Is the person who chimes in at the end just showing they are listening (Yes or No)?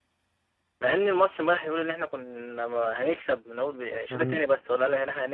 Yes